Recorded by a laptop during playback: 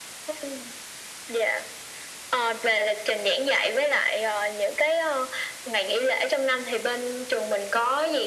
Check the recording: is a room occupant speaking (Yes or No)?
No